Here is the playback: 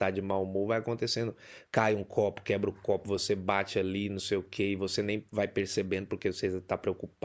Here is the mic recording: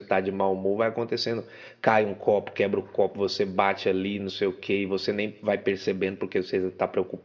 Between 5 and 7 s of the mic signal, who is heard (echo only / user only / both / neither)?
echo only